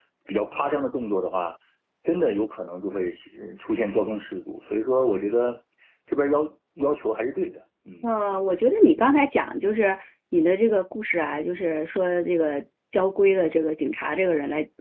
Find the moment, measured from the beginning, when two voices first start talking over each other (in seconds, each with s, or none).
none